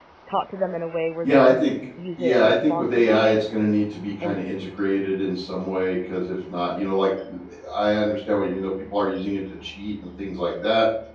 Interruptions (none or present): present